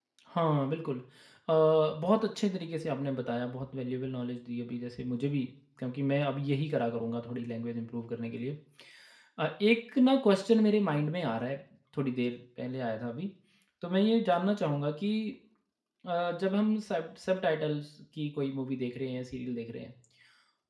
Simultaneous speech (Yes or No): No